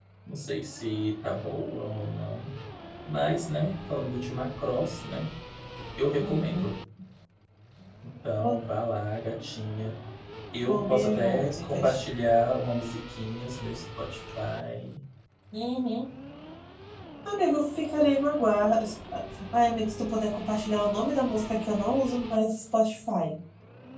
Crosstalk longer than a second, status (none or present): present